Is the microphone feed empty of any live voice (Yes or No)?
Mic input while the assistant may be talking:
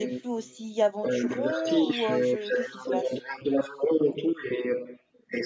No